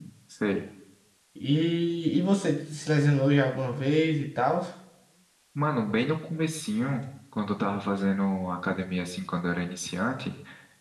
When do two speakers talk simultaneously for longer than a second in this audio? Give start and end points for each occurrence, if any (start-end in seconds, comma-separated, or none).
none